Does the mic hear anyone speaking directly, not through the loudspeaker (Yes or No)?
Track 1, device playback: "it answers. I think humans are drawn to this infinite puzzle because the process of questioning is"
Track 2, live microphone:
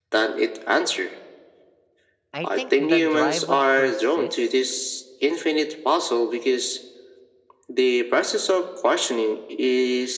Yes